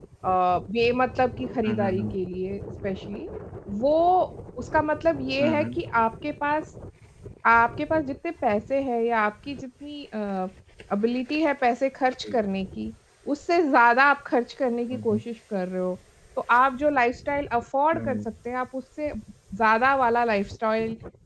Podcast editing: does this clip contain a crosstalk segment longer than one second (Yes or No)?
No